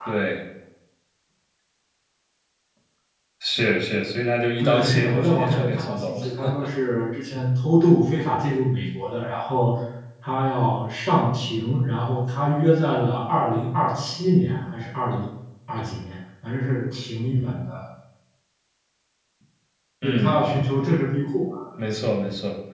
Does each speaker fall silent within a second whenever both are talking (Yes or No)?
No